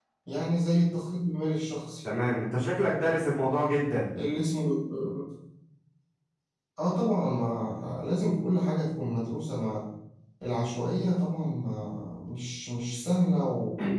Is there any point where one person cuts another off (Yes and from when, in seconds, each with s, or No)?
No